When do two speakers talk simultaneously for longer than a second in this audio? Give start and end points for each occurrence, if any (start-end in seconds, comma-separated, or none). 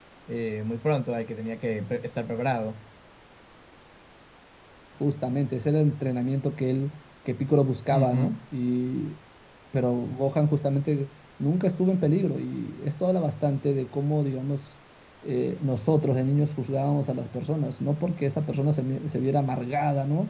none